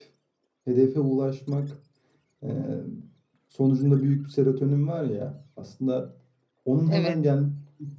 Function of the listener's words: listening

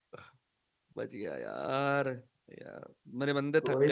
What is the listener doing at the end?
taking over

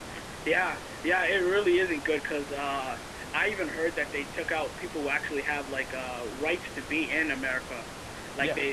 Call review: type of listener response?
listening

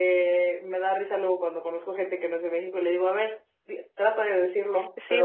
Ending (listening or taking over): taking over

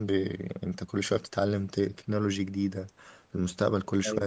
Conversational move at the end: listening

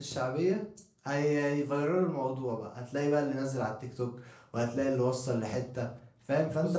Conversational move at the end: listening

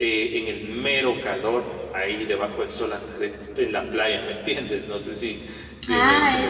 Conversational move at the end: taking over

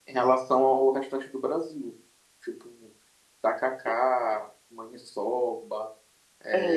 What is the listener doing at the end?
taking over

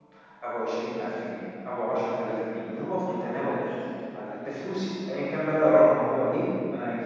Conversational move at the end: listening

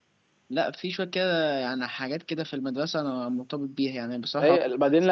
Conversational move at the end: taking over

